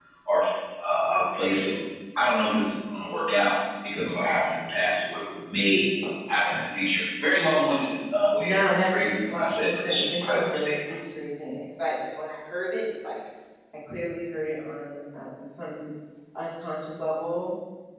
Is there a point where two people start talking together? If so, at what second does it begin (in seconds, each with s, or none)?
8.4 s